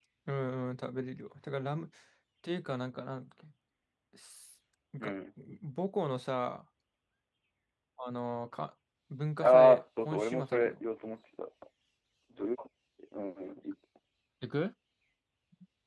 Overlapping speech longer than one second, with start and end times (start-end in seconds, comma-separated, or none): 9.4-10.7